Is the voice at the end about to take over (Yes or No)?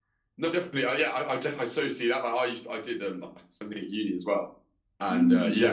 No